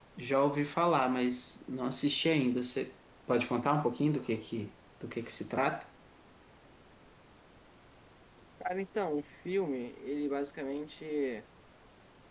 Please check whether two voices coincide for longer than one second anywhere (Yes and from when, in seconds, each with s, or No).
No